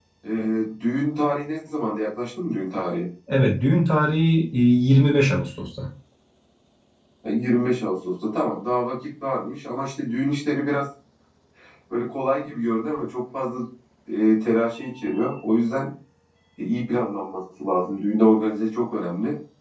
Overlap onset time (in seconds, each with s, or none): none